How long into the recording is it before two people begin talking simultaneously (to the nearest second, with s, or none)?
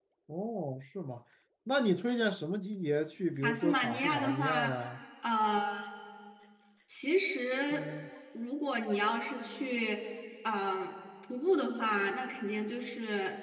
3 s